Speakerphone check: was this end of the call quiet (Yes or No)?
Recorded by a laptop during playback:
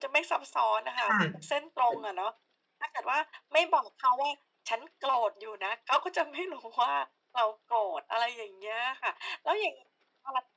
No